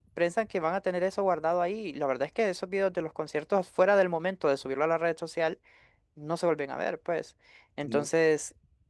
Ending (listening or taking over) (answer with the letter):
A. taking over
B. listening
B